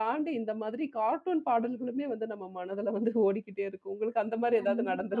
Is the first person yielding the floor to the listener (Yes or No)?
Yes